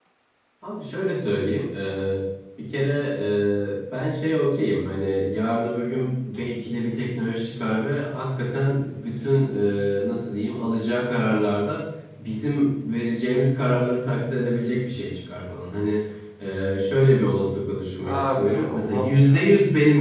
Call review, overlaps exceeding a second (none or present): present